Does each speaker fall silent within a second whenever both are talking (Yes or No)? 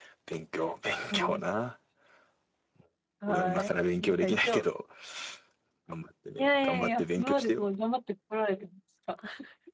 No